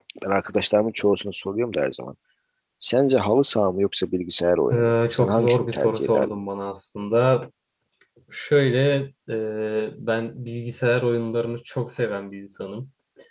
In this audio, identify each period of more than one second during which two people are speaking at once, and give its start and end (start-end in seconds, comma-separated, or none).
4.7-6.4